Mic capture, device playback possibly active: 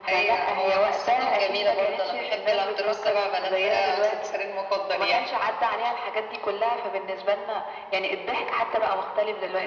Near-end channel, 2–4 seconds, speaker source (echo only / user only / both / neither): echo only